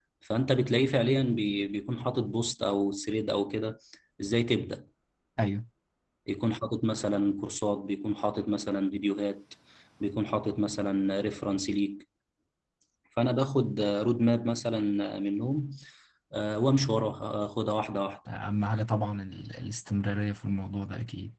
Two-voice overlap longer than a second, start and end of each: none

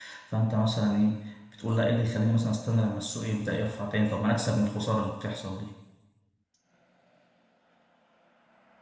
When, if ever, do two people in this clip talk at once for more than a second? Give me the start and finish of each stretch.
none

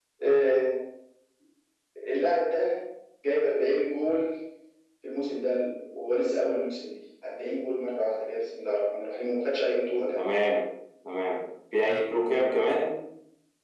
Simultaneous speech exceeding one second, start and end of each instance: none

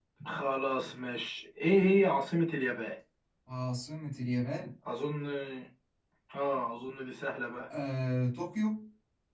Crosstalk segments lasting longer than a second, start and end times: none

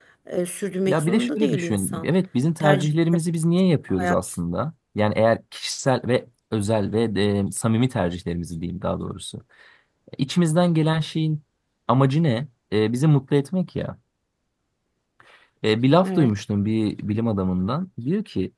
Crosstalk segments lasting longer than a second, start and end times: 0.9-2.1

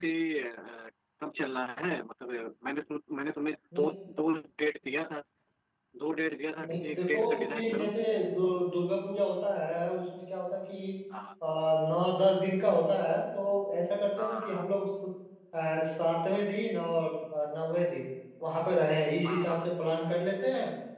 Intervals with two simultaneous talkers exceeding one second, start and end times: 6.6-7.9

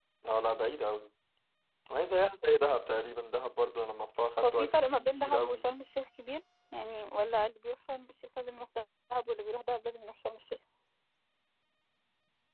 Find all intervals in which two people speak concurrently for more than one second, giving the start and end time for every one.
4.4-5.7

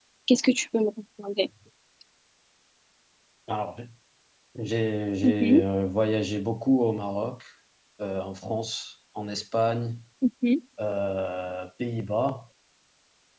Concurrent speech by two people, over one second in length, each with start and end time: none

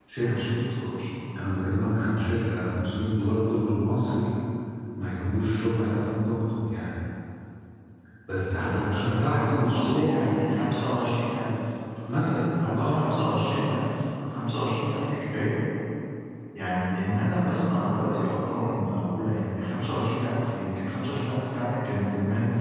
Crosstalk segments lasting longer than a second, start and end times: 8.5-10.2

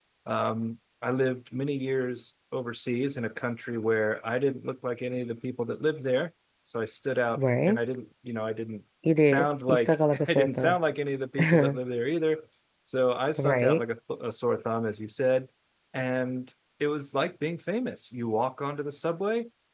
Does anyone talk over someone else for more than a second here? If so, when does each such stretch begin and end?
9.2-10.8

